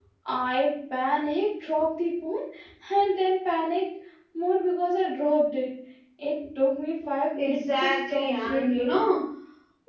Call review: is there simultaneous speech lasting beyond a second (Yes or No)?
Yes